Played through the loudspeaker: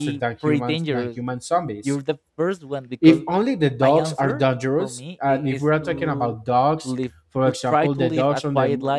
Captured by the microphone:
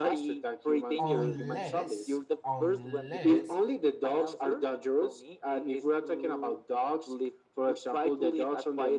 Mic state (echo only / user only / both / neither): both